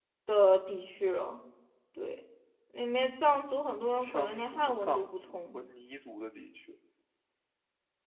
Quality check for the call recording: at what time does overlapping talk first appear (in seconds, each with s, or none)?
4.0 s